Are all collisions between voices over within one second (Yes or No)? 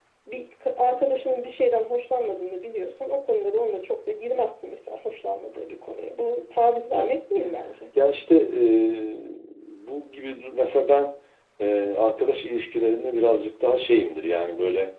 Yes